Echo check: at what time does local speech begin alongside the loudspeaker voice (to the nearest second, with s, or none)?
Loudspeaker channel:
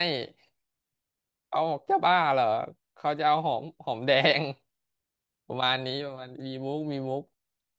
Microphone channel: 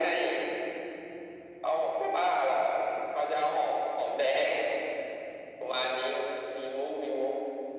none